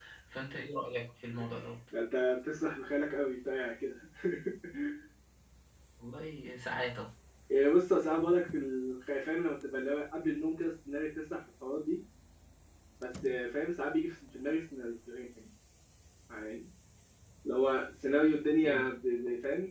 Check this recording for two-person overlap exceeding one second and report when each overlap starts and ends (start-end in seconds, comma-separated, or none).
none